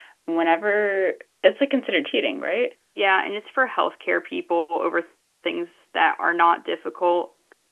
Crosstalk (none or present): none